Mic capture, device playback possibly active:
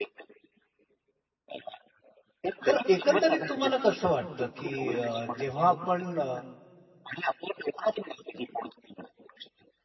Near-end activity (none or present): present